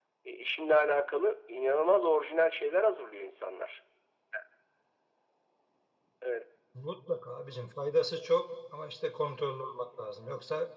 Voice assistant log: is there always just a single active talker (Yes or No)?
Yes